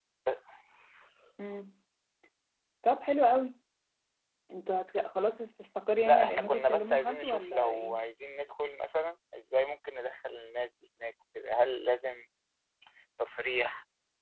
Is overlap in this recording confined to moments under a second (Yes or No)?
No